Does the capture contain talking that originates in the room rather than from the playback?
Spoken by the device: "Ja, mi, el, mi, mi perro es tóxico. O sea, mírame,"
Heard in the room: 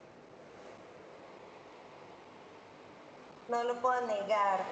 Yes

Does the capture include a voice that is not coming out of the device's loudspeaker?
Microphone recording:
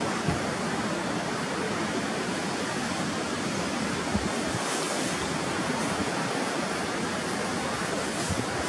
No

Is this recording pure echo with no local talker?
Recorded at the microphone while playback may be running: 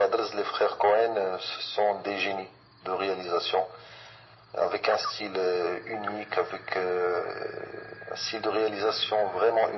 Yes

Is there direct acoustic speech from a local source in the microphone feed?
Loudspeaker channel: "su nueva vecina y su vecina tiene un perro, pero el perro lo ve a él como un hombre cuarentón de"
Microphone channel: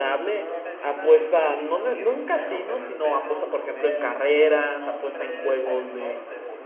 Yes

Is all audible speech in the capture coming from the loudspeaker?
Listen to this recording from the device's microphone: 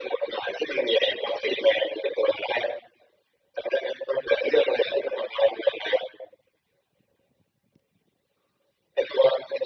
Yes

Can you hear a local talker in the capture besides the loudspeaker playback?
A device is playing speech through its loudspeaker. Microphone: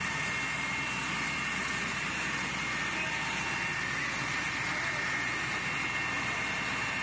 No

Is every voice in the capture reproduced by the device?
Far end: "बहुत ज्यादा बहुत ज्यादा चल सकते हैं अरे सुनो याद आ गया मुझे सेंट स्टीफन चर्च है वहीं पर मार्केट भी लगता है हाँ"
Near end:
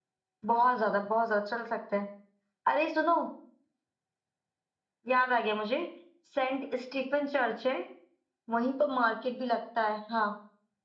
Yes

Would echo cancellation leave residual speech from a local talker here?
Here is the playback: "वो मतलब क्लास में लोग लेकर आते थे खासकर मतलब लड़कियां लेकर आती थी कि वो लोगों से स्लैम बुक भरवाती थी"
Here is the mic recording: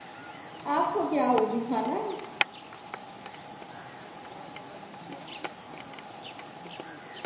Yes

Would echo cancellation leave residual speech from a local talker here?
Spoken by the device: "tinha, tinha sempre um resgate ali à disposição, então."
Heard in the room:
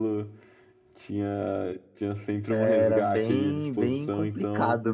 Yes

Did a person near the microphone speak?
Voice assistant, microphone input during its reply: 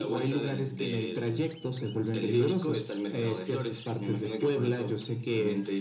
No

